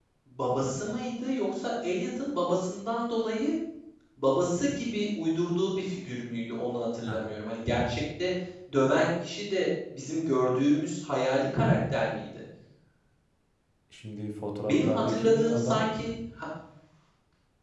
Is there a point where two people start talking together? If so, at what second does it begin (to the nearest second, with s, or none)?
15 s